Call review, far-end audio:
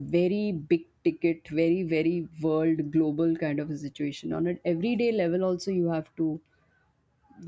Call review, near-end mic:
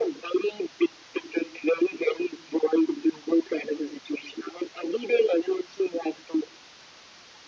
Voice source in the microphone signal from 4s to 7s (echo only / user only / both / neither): echo only